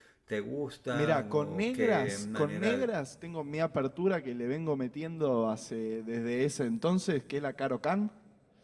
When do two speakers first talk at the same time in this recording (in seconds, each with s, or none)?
0.9 s